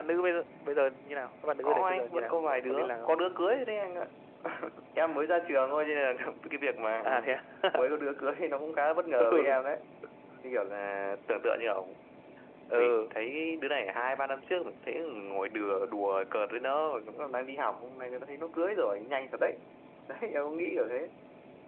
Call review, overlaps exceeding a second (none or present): present